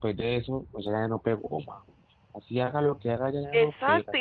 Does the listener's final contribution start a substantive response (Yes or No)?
Yes